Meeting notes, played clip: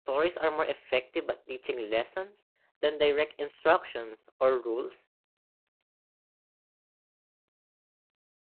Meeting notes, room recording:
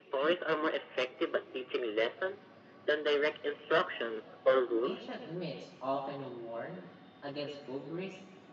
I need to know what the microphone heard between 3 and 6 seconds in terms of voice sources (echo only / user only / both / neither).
both